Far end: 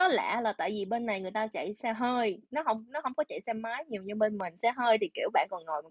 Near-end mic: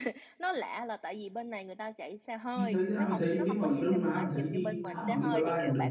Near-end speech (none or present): present